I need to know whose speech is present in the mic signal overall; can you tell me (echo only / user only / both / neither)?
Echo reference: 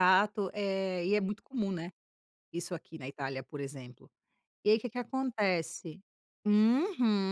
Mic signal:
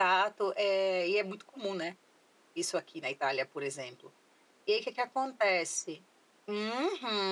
echo only